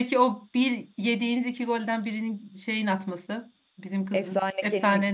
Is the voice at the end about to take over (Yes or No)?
Yes